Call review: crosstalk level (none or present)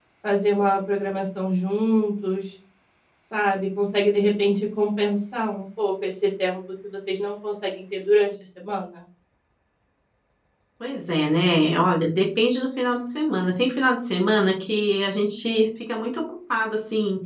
none